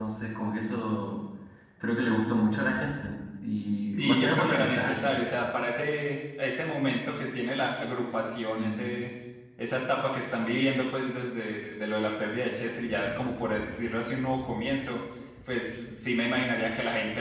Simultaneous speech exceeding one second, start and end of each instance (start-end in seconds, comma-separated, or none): 4.0-5.2